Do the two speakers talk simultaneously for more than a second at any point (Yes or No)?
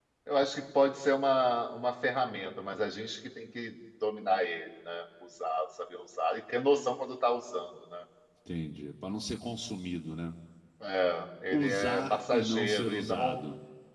Yes